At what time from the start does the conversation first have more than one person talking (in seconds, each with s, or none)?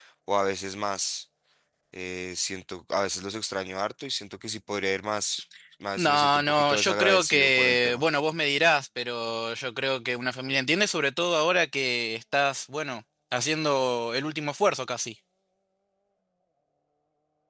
6.0 s